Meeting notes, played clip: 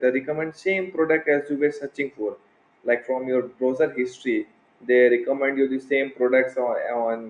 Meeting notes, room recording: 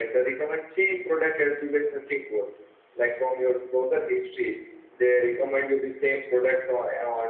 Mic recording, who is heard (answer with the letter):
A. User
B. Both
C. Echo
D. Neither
C